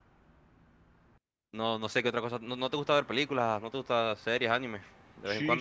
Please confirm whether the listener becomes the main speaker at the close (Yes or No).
Yes